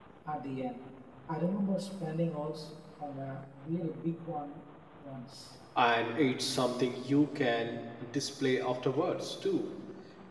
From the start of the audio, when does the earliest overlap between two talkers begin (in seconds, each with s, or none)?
none